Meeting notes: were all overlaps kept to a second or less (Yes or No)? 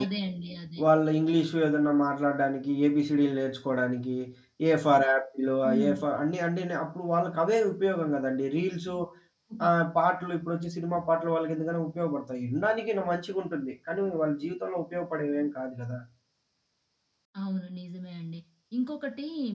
Yes